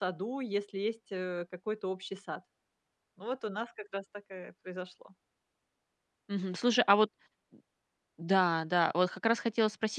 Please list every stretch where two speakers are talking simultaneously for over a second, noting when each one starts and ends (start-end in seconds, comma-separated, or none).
none